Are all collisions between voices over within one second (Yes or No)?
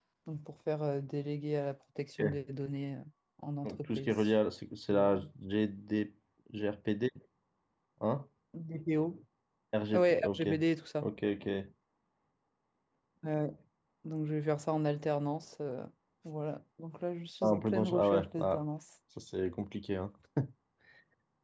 No